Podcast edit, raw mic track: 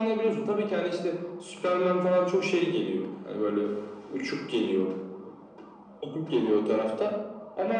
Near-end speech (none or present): none